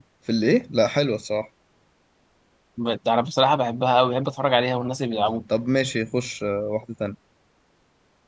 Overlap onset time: none

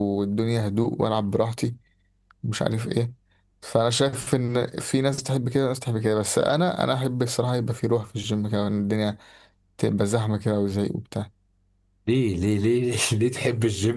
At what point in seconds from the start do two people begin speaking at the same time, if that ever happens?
none

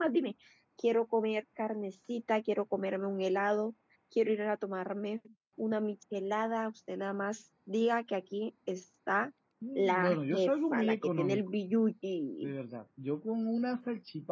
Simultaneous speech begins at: 9.8 s

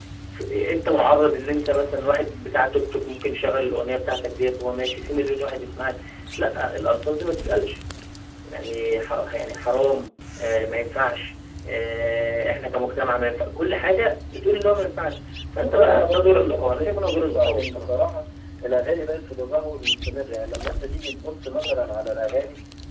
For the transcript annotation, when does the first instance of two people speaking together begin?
15.6 s

